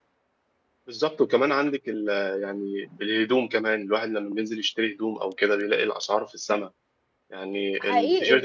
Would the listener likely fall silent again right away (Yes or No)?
No